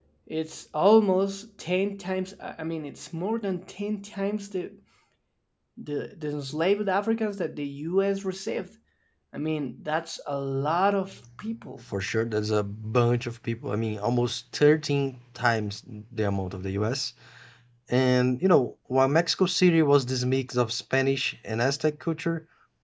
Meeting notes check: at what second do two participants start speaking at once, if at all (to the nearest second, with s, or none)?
none